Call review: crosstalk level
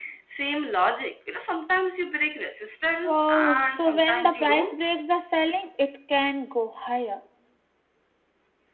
present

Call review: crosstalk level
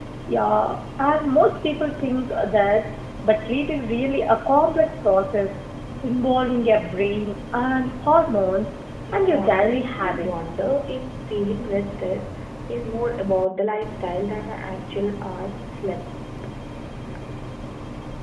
present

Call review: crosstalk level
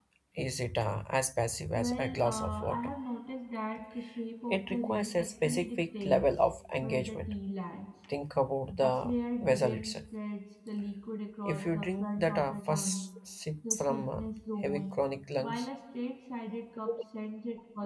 present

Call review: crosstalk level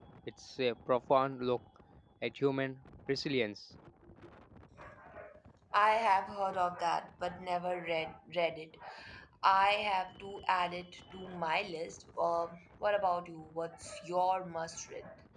none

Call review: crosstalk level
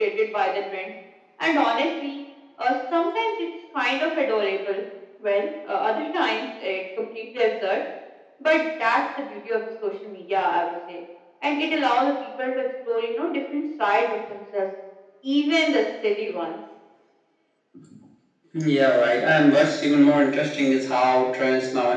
none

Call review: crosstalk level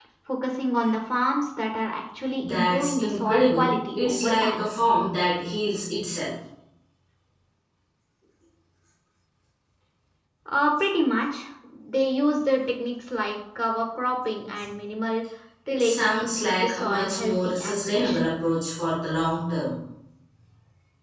present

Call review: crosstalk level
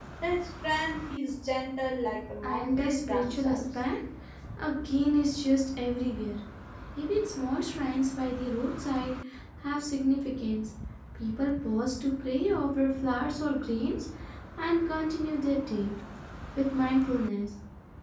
present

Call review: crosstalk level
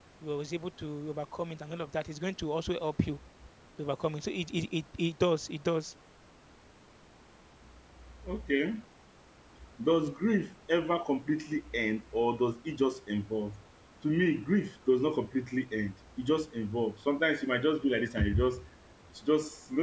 none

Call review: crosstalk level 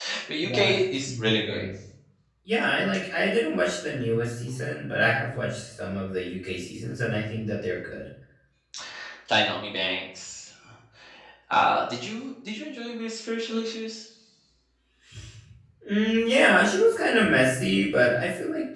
present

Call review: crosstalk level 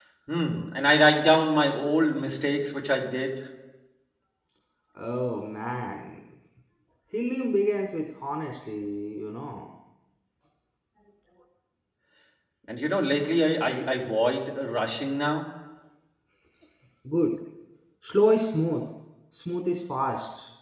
none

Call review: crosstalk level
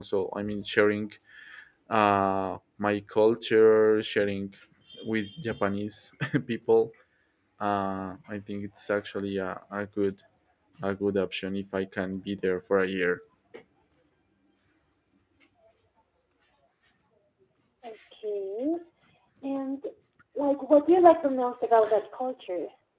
none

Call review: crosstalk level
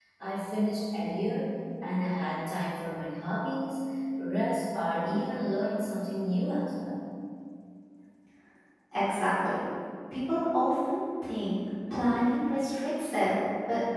none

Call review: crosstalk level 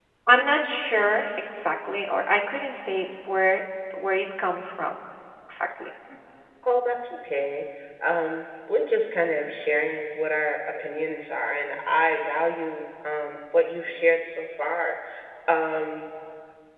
none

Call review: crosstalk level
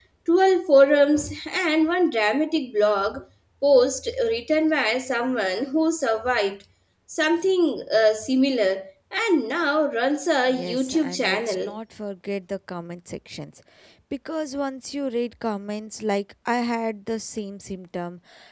present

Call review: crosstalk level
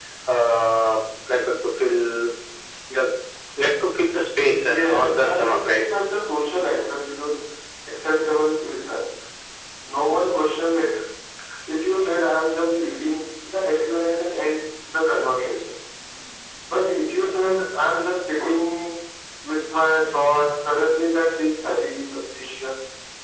present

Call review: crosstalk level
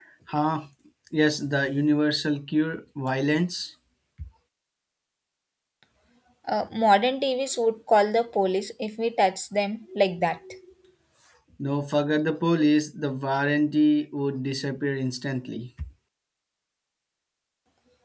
none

